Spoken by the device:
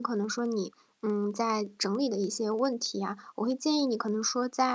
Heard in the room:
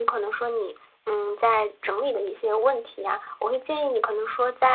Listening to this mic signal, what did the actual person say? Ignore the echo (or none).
none